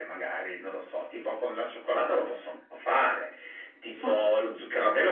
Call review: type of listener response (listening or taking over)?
listening